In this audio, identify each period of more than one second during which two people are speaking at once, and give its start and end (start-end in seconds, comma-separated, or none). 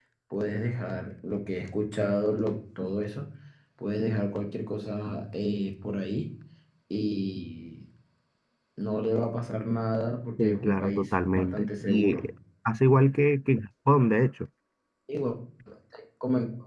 10.4-12.2